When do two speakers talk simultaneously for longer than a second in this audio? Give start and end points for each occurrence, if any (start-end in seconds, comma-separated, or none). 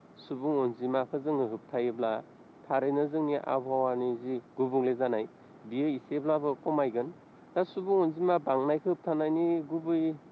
none